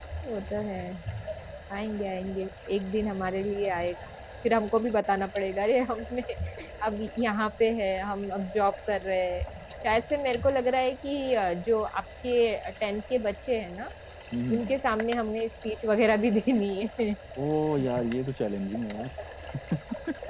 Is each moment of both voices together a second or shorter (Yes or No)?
Yes